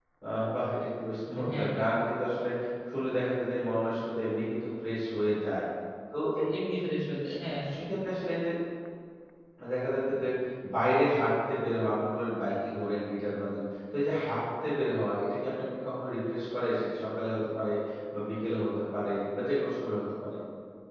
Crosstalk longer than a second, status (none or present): none